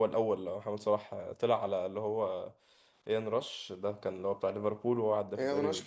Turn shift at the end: Yes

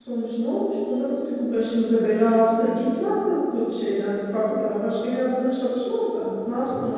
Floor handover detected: Yes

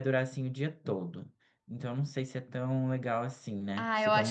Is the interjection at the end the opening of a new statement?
Yes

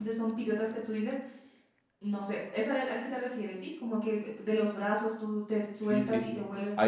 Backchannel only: No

